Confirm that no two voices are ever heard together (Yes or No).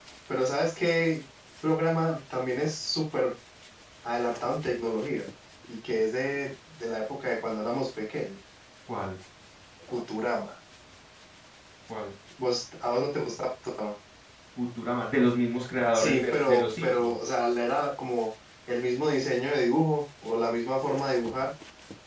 No